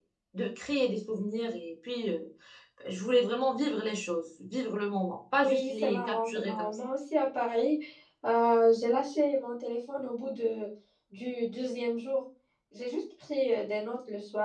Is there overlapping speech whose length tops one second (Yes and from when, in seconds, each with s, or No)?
Yes, from 5.4 s